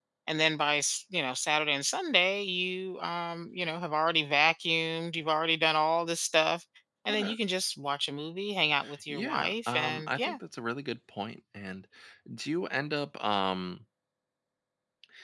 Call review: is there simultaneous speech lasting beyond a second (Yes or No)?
Yes